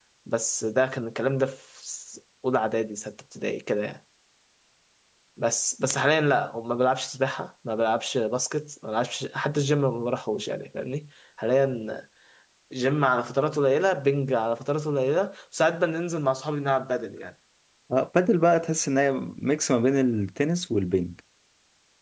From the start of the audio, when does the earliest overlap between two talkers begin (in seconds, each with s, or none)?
none